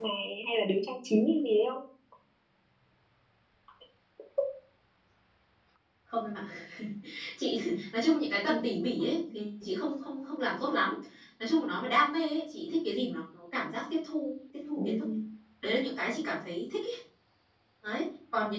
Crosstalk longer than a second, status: none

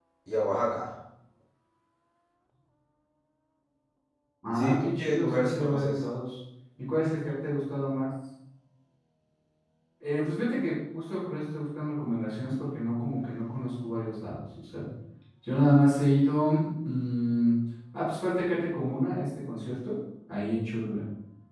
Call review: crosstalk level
present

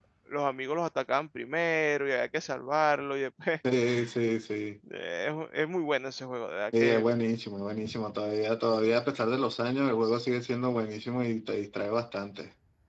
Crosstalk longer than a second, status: none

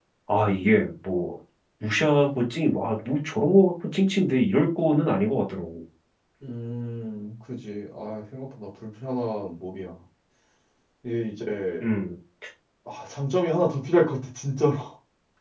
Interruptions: none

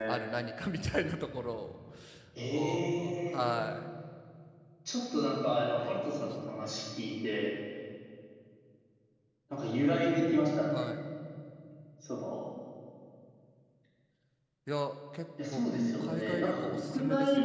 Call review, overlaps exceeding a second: present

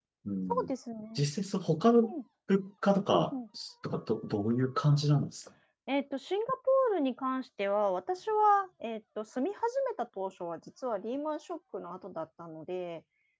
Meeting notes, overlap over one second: none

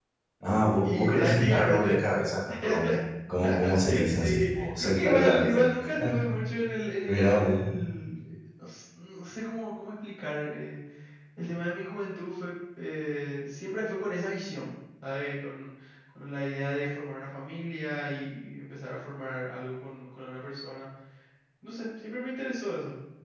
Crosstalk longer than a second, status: present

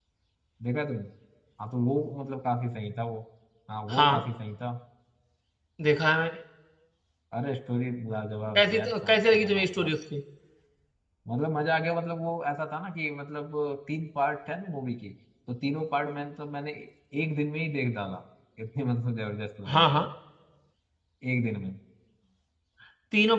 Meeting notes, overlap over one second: present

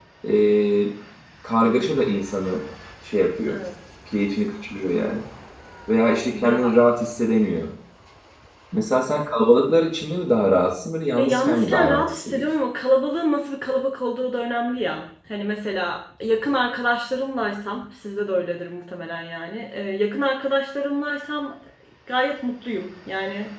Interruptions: present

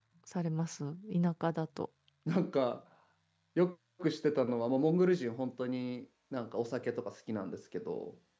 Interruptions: none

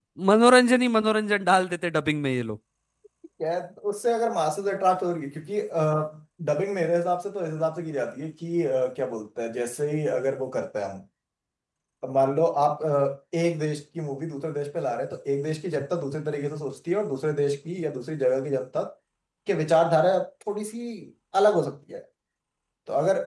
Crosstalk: none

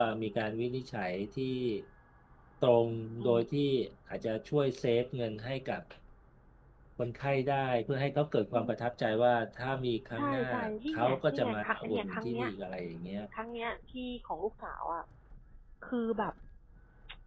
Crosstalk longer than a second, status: present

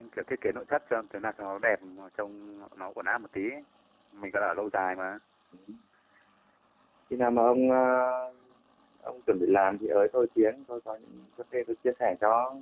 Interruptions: none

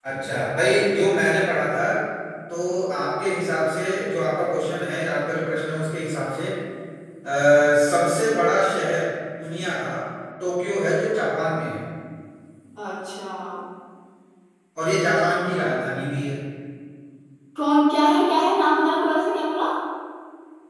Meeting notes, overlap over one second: none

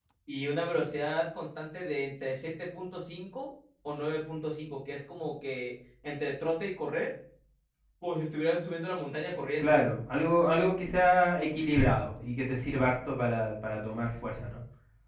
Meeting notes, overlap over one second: none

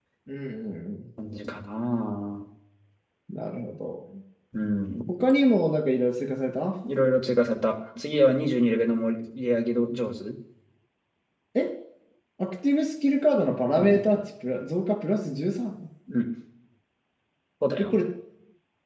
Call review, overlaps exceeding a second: none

